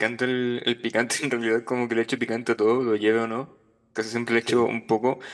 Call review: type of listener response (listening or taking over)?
listening